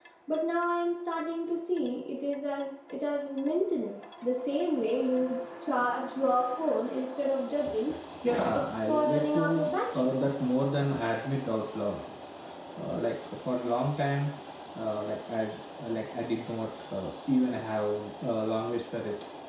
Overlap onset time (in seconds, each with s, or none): 8.5 s